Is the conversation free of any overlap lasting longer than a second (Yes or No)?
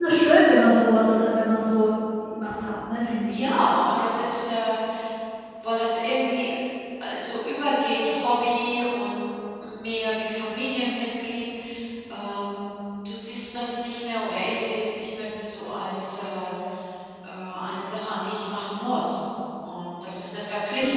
Yes